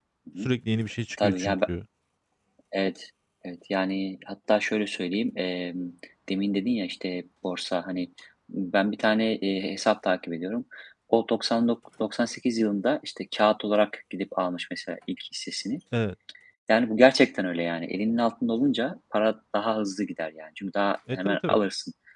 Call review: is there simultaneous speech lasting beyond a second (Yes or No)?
No